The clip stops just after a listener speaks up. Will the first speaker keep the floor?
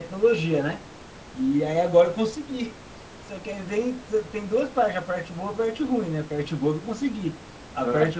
Yes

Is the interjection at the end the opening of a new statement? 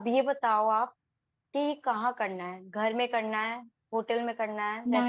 Yes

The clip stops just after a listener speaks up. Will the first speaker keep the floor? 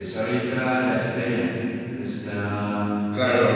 No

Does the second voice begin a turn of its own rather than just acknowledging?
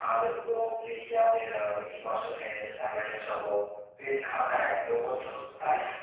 No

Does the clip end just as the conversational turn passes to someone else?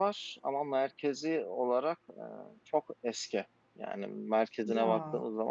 No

